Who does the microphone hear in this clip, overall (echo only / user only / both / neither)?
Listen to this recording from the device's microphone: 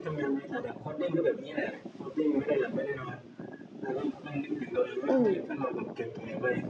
both